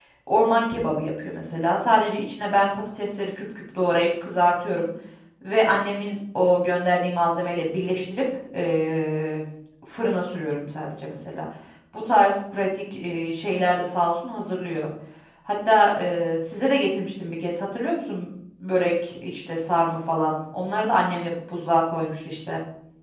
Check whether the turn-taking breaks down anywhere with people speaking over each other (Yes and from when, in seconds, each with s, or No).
No